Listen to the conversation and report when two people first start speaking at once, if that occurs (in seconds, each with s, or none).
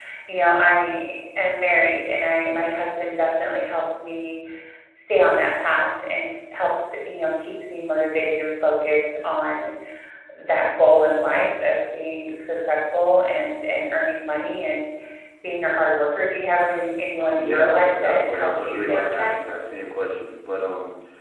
17.2 s